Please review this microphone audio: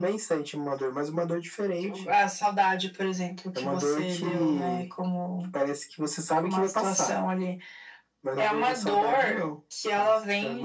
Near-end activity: none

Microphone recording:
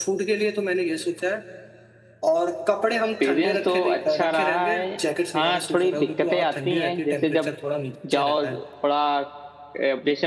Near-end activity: none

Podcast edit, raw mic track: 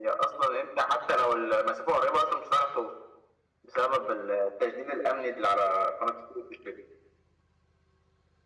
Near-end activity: none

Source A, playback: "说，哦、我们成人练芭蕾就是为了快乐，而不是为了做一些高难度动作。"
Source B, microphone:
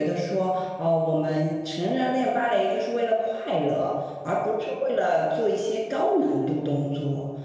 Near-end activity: none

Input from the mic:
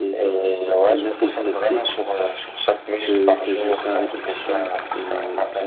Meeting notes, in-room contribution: present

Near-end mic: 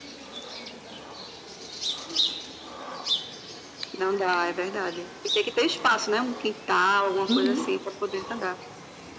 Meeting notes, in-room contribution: present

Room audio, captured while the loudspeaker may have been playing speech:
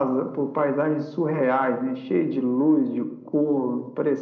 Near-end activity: none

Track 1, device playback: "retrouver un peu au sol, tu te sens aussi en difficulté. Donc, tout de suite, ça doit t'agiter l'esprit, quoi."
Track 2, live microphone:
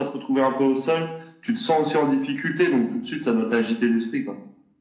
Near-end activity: none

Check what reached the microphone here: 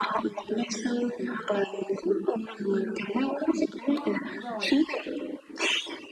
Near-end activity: present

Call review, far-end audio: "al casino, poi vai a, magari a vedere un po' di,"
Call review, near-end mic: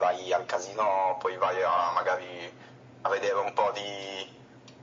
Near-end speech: none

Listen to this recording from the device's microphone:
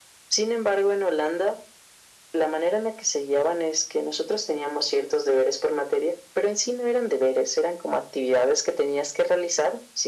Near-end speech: none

